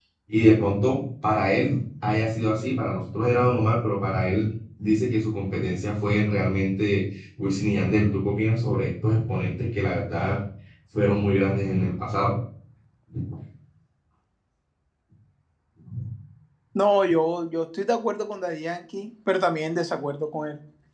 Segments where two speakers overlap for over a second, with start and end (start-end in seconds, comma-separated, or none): none